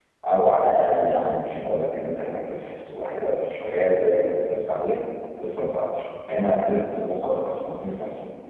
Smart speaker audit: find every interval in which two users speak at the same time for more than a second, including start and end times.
none

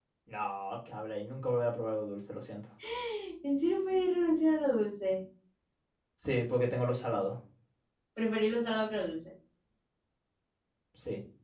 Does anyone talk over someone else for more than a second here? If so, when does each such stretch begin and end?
none

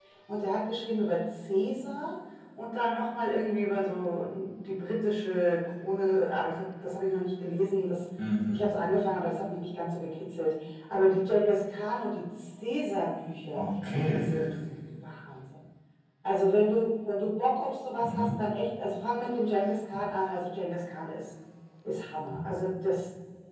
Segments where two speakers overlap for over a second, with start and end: none

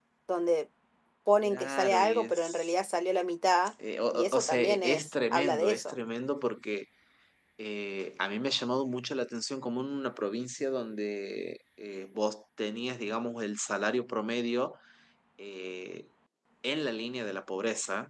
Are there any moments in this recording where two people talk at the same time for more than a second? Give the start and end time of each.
1.4-2.7, 4.1-6.0

